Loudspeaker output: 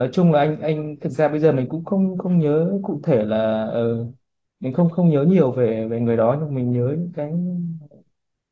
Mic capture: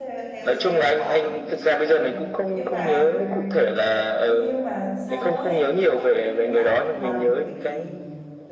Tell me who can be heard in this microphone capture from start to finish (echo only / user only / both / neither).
both